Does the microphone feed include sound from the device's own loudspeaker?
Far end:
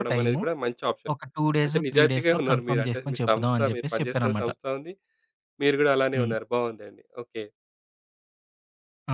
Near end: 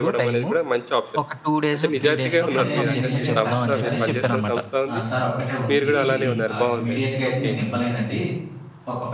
Yes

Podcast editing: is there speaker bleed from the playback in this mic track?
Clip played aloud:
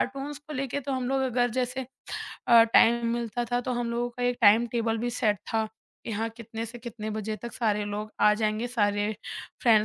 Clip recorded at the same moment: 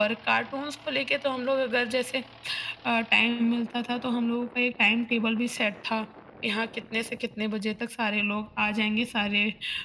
Yes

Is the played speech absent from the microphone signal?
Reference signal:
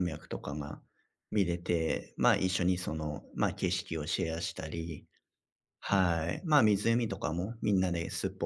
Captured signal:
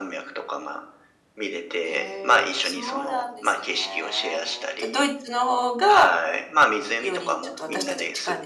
No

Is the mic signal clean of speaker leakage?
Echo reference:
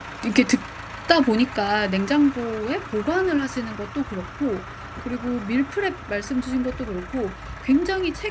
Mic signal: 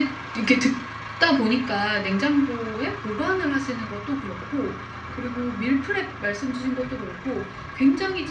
No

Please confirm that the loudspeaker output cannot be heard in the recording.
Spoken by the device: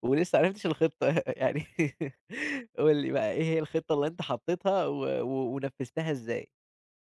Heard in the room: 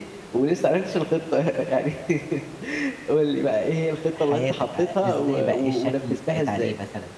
No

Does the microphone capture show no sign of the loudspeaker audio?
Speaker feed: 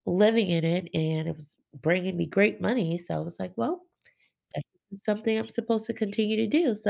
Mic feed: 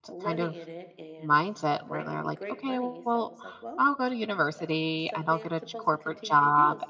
No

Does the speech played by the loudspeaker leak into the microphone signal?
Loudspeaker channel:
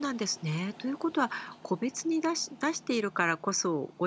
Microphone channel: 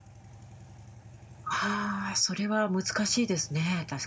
No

